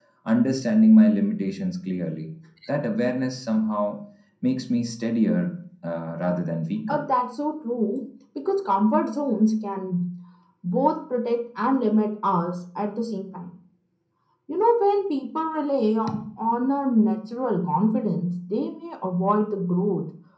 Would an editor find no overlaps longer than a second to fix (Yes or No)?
Yes